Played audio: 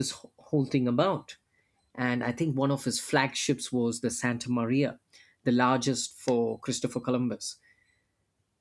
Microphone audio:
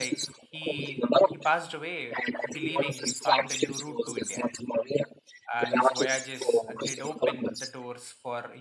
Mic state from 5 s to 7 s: both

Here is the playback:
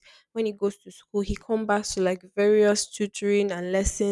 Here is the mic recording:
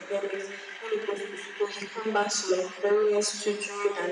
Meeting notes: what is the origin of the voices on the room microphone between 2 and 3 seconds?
echo only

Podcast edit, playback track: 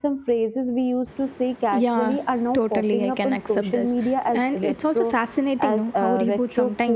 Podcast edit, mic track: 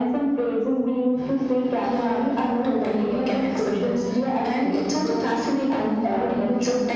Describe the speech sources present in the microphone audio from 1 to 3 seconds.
echo only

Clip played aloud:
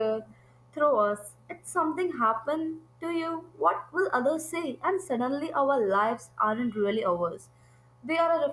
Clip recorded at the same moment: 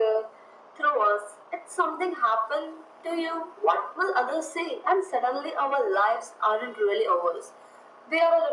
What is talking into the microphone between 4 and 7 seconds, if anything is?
echo only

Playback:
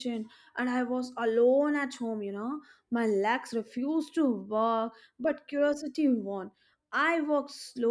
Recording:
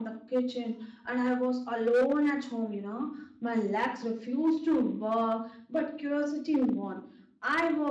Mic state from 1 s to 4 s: echo only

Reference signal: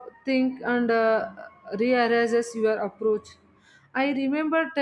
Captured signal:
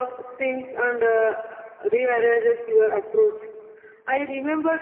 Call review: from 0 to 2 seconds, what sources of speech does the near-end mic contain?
echo only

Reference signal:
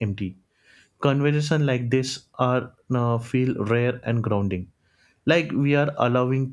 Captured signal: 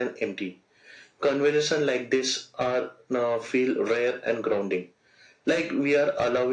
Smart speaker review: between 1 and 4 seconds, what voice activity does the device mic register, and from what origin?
echo only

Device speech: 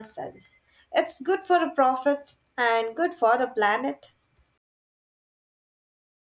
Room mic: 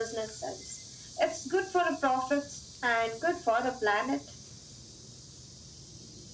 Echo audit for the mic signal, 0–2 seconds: echo only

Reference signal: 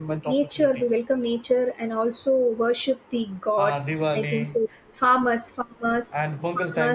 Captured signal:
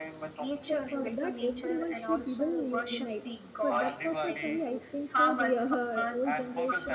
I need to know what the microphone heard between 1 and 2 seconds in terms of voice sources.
both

